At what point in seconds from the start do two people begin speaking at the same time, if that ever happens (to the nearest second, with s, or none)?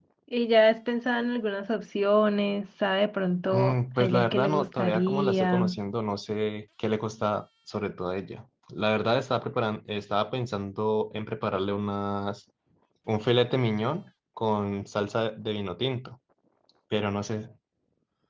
4 s